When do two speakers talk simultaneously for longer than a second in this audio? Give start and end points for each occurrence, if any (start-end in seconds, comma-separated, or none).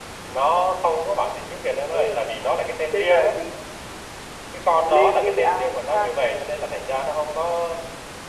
4.9-6.3